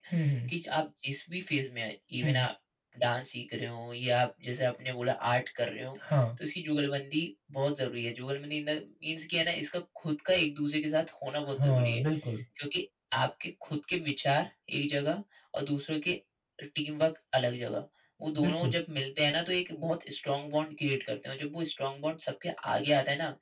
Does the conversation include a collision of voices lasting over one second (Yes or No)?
No